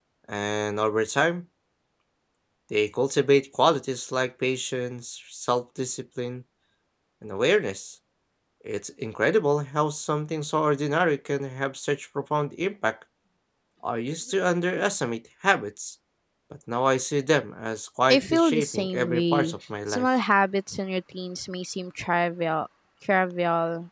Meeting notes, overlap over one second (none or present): present